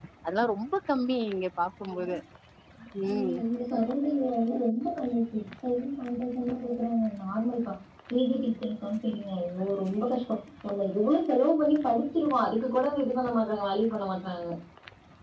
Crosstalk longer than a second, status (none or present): none